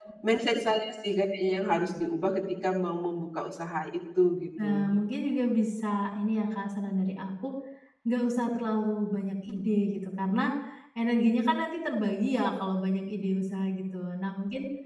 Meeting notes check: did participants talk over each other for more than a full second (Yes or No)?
No